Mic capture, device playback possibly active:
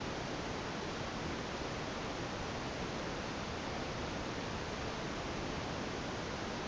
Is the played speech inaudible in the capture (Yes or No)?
Yes